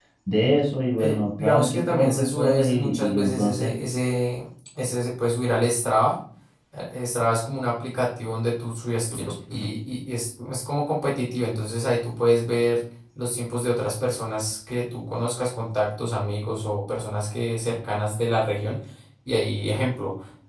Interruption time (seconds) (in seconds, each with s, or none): 1.0 s